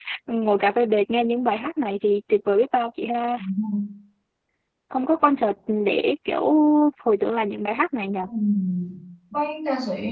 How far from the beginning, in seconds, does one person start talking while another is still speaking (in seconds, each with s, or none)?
none